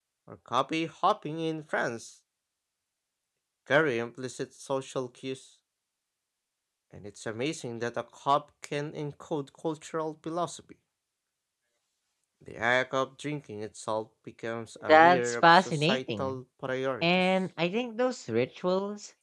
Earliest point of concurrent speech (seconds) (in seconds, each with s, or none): 14.9 s